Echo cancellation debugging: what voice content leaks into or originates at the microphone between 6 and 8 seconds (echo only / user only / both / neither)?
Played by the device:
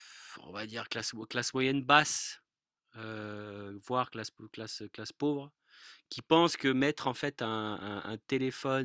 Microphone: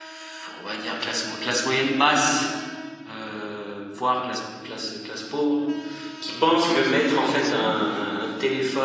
both